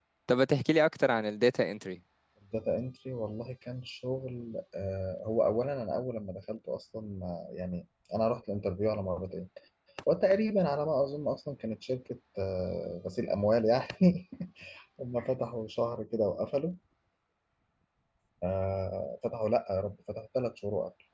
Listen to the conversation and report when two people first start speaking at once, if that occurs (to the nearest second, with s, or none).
none